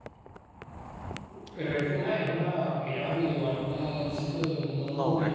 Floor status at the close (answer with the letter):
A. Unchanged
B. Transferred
B